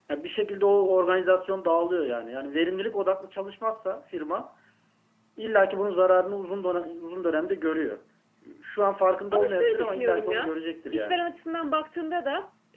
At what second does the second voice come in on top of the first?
9 s

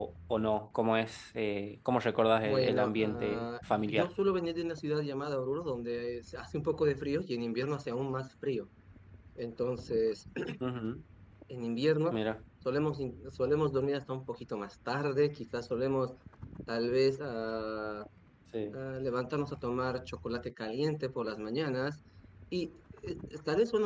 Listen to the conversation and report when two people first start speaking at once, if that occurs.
2 s

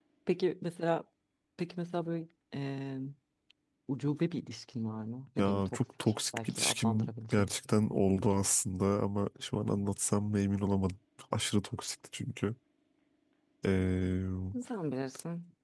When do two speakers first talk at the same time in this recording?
5 s

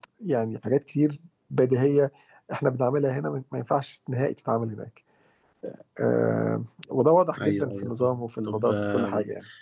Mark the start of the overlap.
7 s

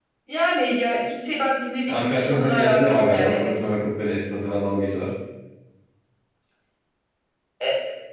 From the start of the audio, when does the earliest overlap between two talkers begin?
2 s

